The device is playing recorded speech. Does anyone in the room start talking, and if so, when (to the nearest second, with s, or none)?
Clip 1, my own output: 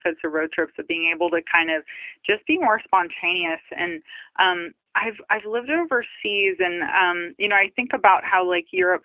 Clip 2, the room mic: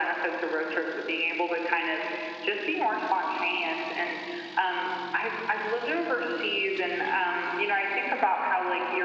none